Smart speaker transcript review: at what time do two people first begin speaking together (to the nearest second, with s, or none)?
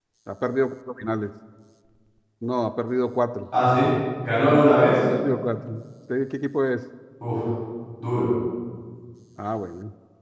none